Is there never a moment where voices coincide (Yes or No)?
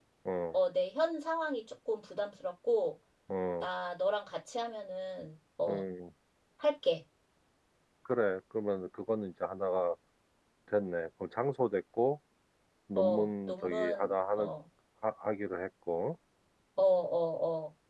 No